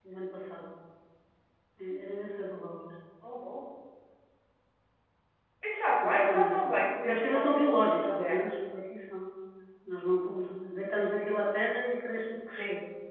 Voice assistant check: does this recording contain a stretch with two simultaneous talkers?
Yes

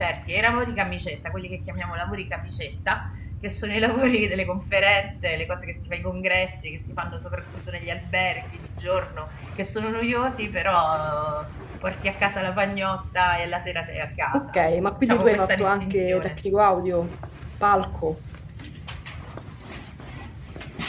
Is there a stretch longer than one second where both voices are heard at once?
Yes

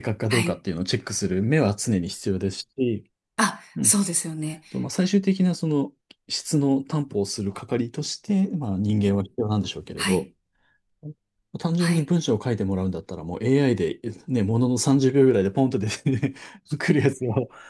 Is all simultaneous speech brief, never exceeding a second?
Yes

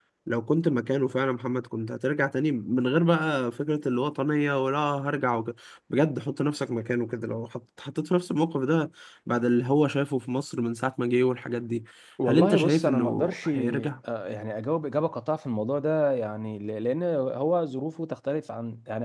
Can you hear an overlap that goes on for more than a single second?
Yes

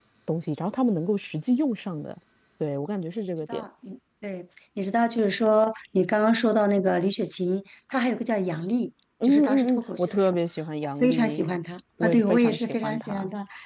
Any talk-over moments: Yes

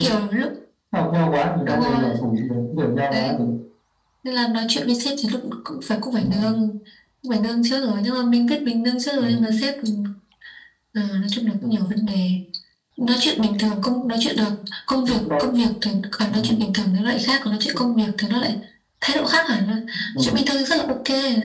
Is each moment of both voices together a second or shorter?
Yes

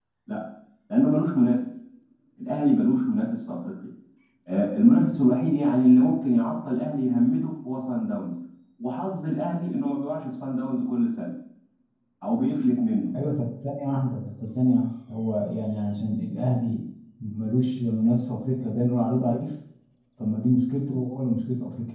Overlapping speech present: No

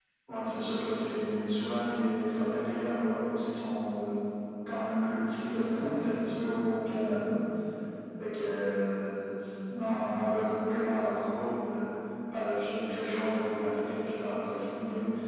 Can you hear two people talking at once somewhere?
No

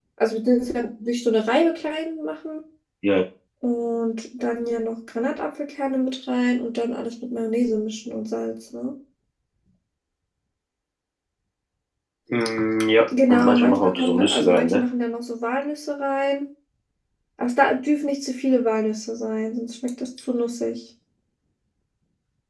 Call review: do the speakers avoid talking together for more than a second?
No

